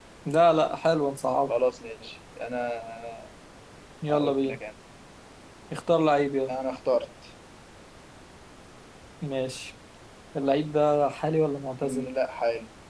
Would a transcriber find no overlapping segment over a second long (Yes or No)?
Yes